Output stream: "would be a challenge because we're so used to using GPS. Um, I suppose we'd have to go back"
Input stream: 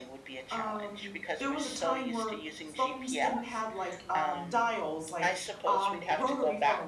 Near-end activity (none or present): present